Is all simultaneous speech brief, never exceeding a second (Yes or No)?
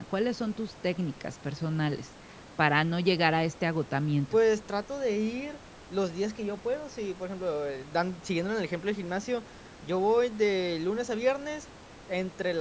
Yes